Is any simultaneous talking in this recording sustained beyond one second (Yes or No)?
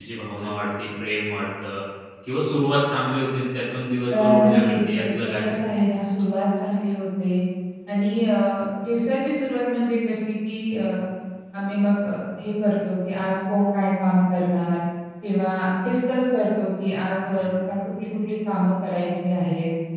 Yes